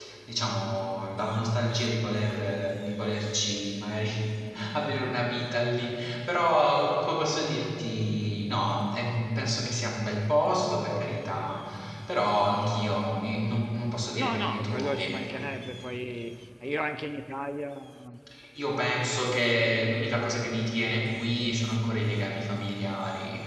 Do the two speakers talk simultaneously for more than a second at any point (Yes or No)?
Yes